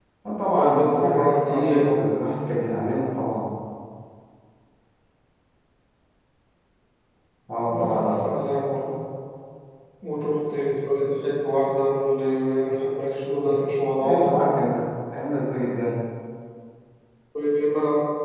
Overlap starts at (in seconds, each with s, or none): 0.5 s